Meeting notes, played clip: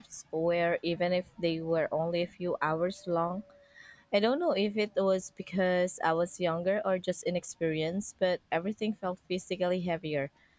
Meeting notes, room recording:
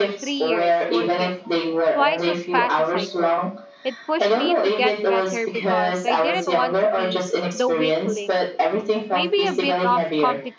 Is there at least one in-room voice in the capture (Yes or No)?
Yes